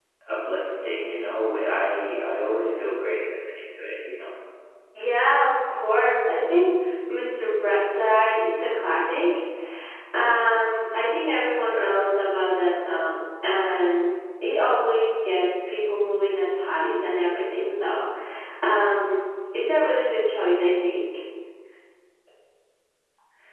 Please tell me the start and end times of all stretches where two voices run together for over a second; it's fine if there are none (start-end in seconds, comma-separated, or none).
none